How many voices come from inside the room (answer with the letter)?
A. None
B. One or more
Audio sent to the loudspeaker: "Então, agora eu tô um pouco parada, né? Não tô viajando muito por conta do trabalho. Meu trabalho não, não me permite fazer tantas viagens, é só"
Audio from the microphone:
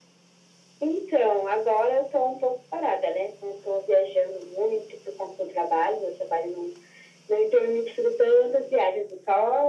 A